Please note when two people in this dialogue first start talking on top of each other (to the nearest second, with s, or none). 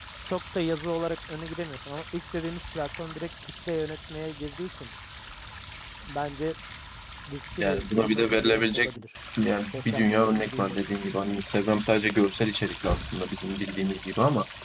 8 s